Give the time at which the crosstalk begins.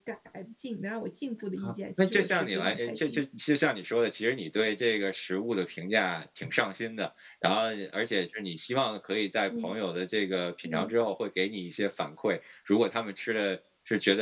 1.6 s

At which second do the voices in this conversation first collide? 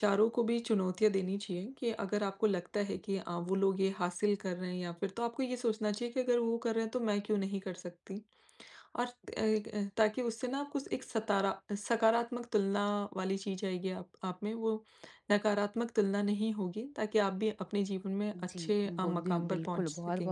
18.3 s

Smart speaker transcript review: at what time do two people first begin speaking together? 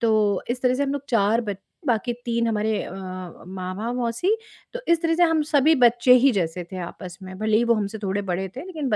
none

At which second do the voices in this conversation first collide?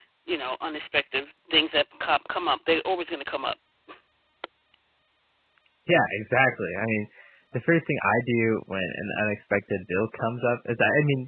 none

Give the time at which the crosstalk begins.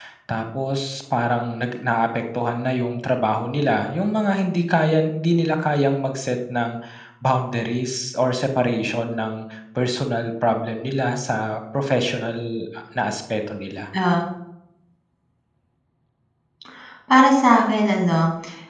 none

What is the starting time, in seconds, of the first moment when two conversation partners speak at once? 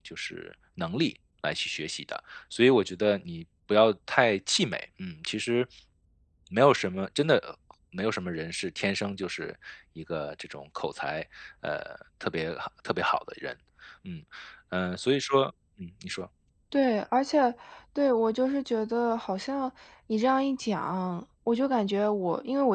none

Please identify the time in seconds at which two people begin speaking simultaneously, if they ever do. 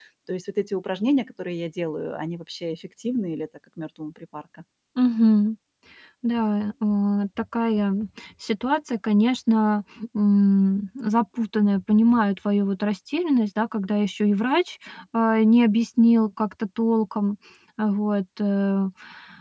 none

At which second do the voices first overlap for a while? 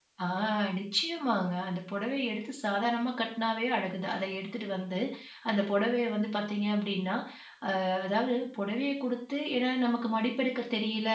none

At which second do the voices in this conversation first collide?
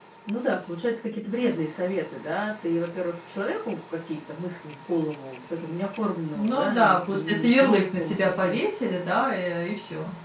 6.3 s

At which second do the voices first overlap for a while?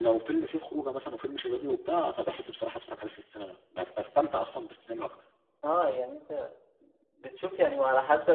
none

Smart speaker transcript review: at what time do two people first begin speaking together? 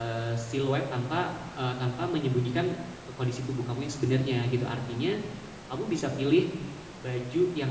none

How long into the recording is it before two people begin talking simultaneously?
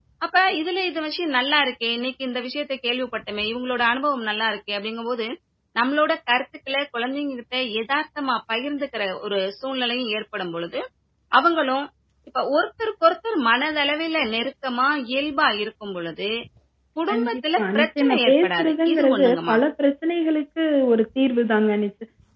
17.1 s

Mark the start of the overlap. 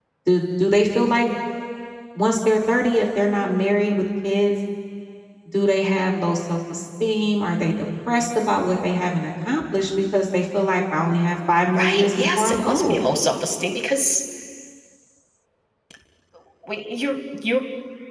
11.7 s

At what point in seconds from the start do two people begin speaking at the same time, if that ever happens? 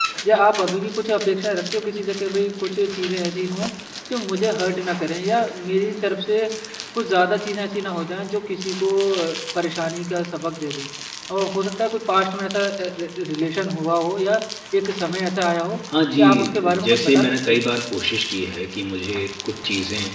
16.2 s

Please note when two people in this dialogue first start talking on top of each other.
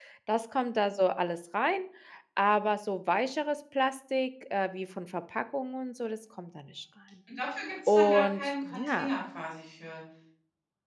7.9 s

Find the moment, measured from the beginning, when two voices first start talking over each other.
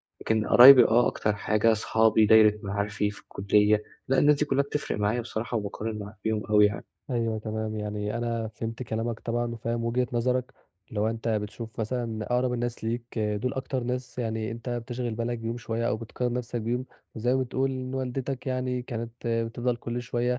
none

